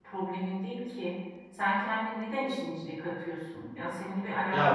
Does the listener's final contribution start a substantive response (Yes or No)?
No